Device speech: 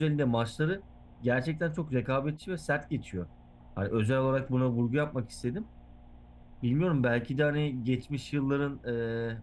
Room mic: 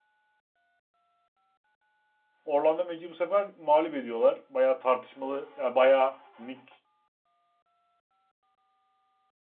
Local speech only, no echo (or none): Orlando Magic'i bu sefer mağlup ediyorlar. Bayağı tartışmalı, yani bayağı Nick